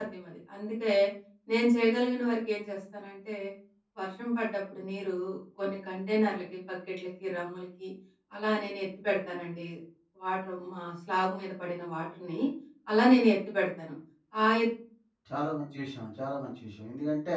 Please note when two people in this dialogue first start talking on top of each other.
none

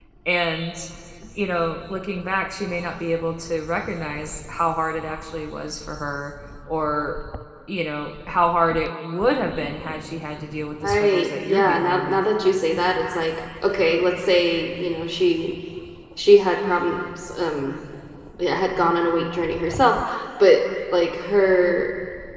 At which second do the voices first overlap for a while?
11 s

